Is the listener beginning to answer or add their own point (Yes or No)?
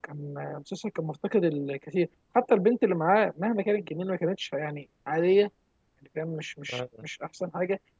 No